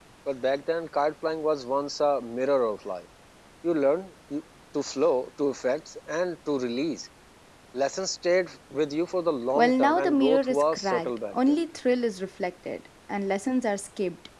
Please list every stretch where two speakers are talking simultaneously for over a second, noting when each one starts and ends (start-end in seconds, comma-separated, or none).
9.6-11.6